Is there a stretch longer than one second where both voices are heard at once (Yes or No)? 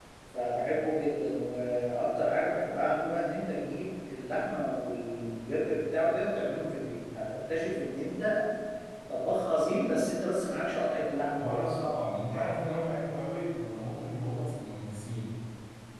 No